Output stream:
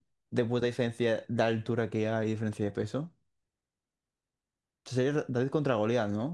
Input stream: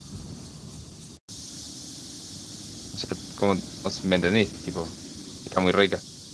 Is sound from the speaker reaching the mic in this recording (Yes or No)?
No